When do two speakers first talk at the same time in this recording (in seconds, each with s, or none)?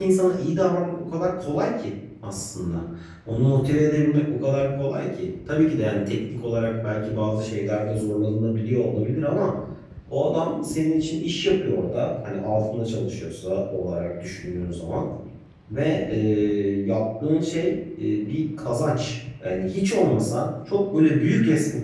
none